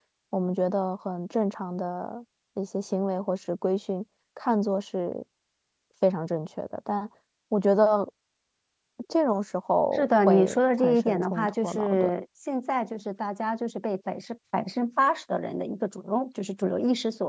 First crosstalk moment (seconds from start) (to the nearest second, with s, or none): 10 s